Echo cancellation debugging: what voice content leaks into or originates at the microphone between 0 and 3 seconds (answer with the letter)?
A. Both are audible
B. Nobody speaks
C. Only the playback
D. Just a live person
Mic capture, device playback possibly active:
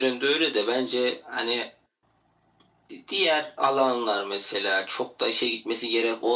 C